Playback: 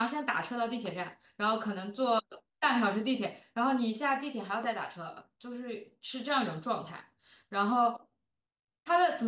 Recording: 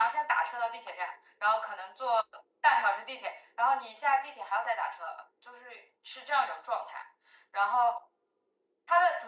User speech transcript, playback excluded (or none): none